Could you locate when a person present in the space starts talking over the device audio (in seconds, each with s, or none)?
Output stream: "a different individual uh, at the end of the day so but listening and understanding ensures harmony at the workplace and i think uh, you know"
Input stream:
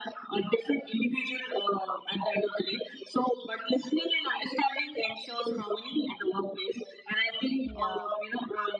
7.6 s